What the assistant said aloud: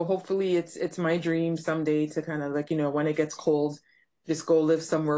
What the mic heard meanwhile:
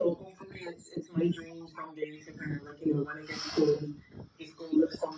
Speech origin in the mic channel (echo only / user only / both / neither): echo only